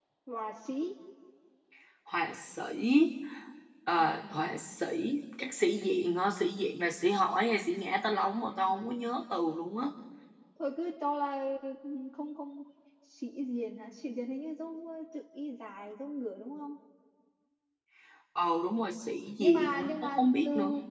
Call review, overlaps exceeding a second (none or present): present